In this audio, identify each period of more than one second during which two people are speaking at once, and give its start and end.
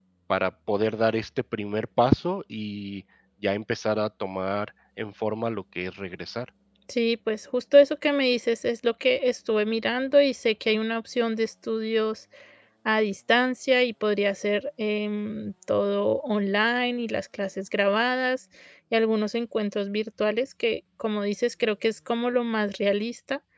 none

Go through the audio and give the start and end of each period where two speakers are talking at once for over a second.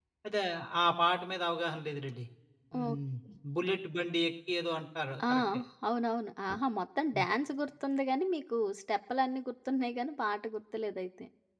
none

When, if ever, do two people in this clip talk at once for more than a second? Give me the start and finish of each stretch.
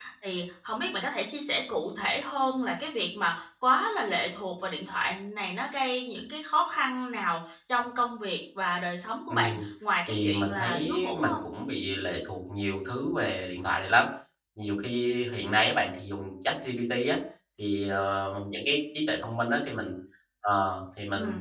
10.1-11.4

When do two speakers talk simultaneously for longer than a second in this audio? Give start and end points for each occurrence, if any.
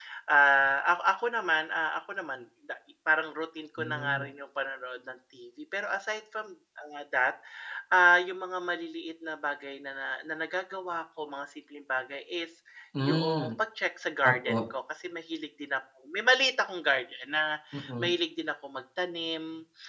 none

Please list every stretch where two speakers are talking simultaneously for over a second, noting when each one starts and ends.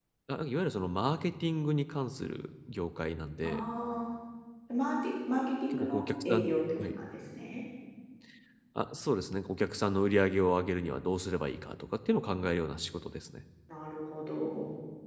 5.7-7.0

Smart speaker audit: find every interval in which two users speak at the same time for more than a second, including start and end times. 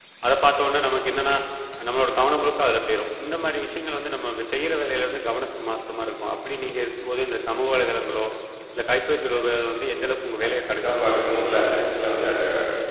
10.4-11.8

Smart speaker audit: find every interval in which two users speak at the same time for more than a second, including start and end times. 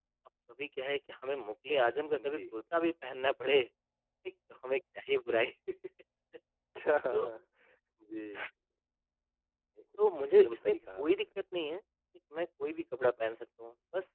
10.0-11.2

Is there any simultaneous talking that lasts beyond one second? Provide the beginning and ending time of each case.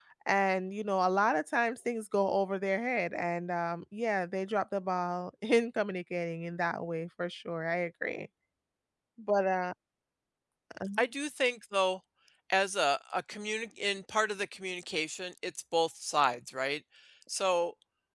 none

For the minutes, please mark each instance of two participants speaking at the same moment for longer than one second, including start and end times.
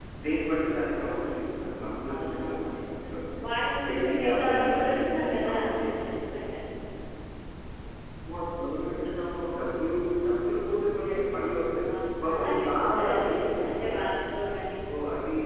3.9-5.6, 12.3-13.9

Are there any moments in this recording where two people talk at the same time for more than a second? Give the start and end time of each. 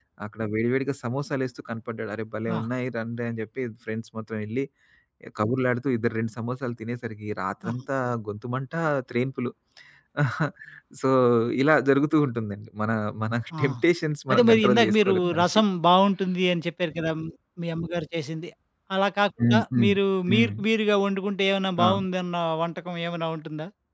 14.3-15.6

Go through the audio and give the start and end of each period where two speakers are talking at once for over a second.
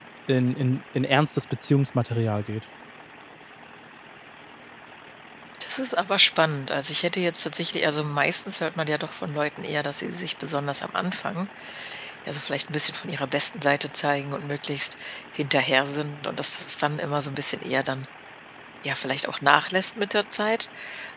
none

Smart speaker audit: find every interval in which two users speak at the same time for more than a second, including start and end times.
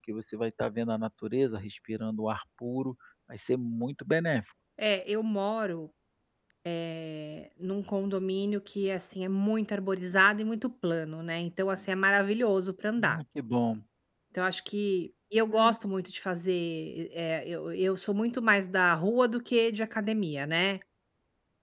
none

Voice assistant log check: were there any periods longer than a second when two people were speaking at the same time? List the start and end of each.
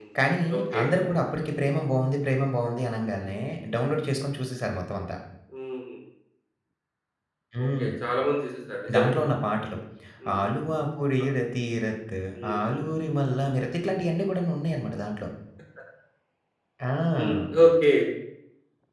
none

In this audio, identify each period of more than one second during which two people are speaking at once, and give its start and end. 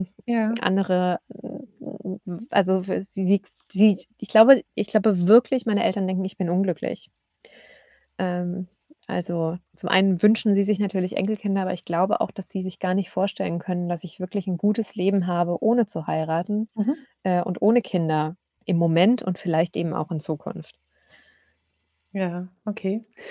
none

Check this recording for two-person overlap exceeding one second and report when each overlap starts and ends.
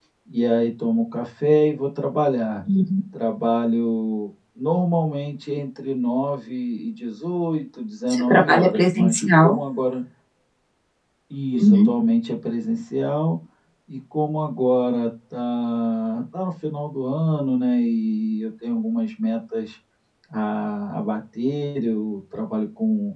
8.1-9.6

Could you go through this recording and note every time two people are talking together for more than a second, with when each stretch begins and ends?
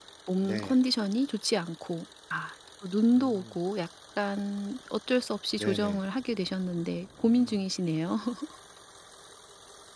none

